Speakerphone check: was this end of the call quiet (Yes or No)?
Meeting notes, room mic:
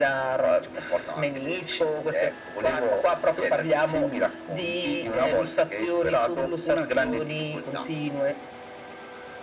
Yes